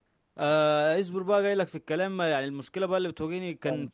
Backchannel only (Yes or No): Yes